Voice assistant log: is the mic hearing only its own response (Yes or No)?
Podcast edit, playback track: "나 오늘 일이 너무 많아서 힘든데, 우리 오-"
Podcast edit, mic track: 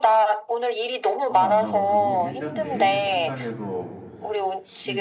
No